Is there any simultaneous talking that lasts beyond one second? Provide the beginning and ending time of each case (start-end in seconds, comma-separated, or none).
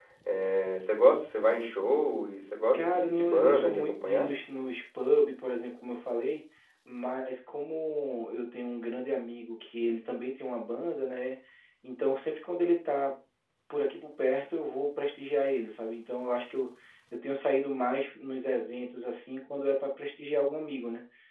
2.7-4.3